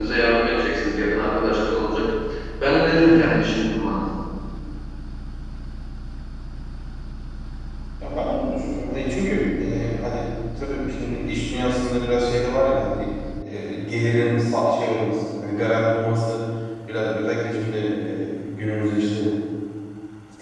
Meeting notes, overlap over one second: none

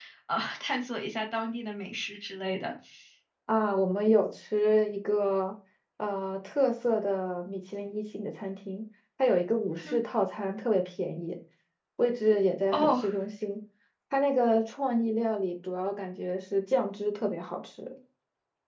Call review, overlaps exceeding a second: none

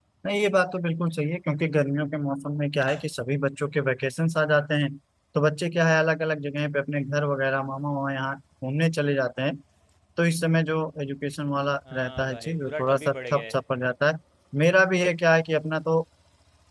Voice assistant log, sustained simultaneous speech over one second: present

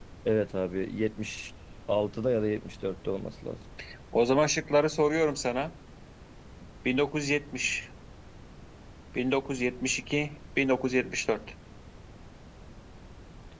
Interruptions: none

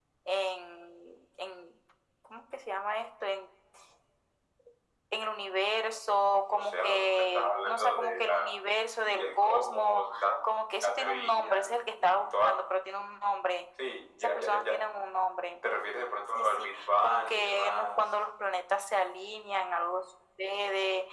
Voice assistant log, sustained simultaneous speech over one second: present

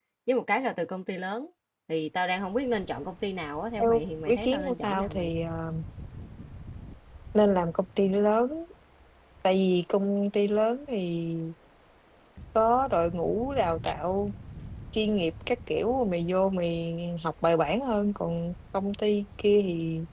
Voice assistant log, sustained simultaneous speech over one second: present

